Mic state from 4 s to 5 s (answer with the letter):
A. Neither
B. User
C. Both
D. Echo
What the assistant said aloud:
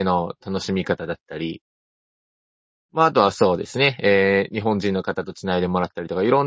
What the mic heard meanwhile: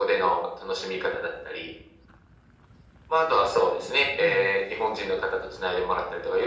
C